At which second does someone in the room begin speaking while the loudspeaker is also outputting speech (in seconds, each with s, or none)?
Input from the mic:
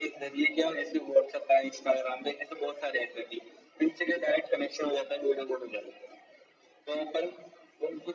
none